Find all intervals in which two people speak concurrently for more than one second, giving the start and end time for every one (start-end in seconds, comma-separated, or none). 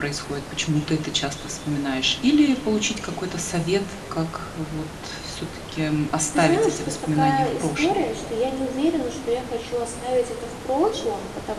6.4-8.0